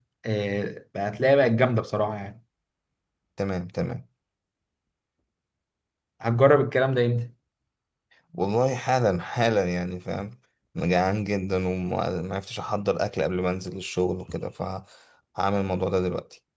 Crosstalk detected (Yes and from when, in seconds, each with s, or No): No